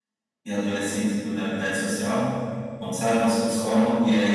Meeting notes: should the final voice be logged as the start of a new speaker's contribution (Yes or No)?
No